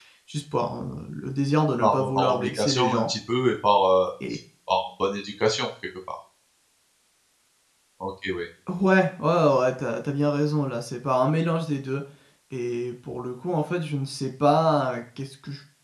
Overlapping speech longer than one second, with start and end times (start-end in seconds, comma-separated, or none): 1.8-3.1